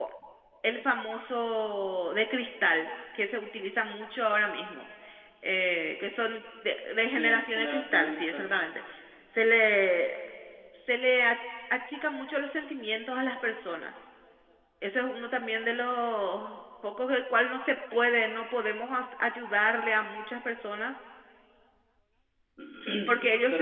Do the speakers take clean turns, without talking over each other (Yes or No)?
No